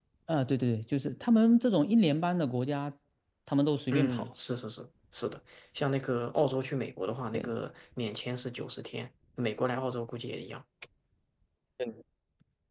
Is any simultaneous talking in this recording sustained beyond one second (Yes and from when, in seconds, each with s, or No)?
No